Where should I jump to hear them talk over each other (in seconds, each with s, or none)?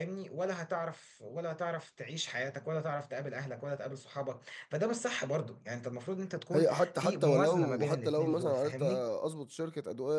6.5 s